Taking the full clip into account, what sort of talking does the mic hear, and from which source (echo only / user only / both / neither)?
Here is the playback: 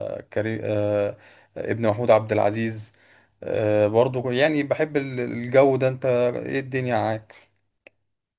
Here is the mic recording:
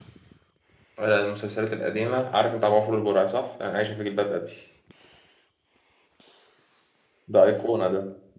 user only